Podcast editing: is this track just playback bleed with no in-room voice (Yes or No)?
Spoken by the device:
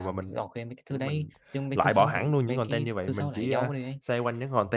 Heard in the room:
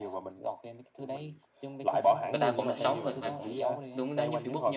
No